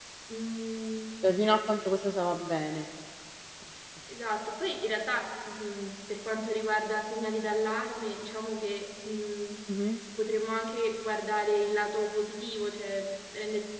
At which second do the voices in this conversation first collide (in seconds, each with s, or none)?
none